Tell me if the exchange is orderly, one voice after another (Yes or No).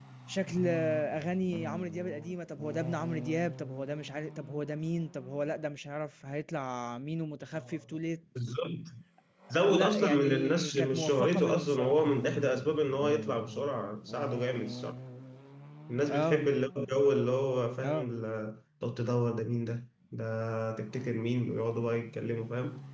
No